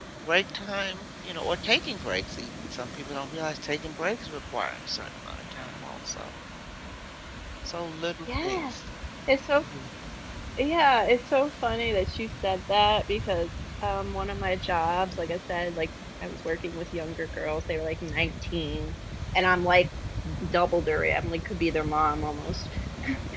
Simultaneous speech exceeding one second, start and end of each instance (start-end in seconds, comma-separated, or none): none